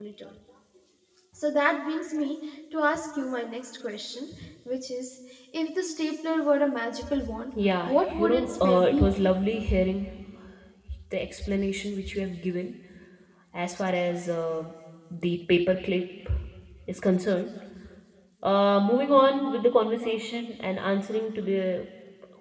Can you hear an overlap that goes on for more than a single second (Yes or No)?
Yes